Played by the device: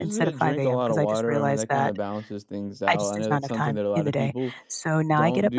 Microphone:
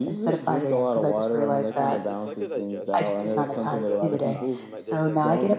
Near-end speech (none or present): present